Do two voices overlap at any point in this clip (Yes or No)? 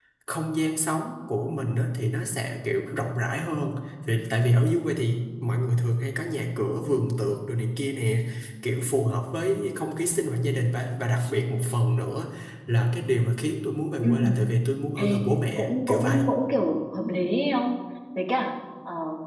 Yes